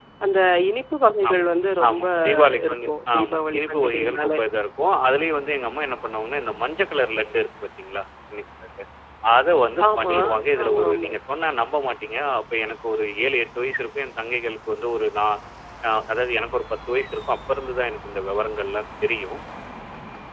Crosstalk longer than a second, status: present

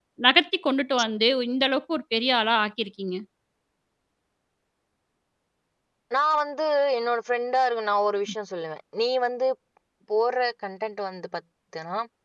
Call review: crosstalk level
none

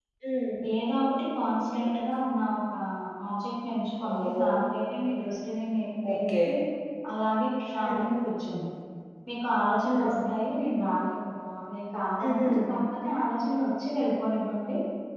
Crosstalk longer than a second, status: none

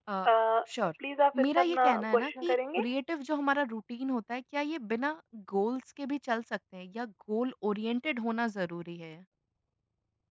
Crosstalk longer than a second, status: present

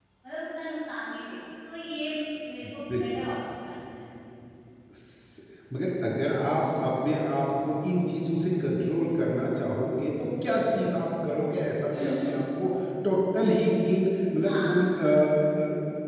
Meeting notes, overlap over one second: none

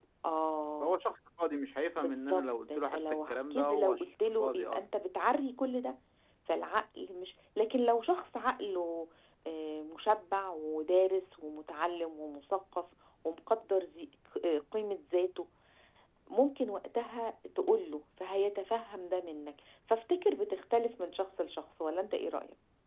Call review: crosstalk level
present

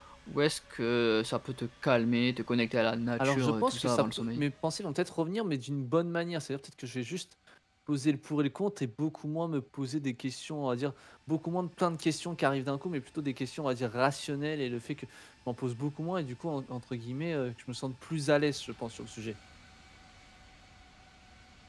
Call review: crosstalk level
present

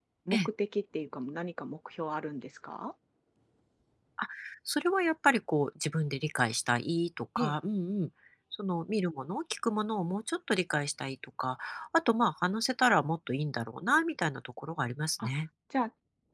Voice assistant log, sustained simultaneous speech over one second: none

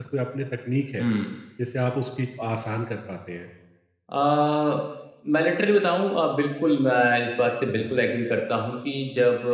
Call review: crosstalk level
none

